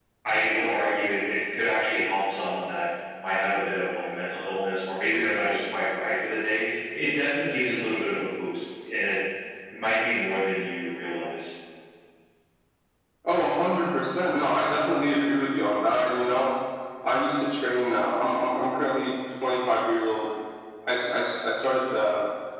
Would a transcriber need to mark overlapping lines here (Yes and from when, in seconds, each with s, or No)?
No